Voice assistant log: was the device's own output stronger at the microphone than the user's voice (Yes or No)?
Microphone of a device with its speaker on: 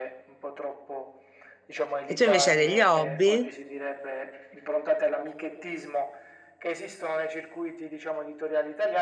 No